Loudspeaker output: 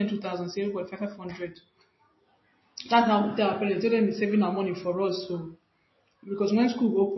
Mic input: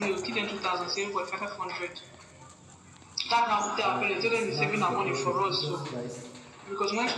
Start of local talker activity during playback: 3.8 s

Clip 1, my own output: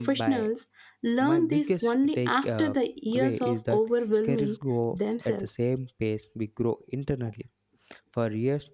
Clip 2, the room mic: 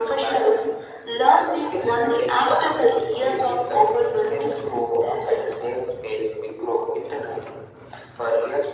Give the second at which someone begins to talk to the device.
none

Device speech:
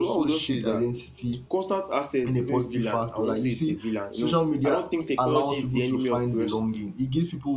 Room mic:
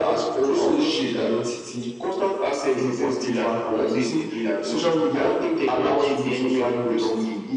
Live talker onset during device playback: none

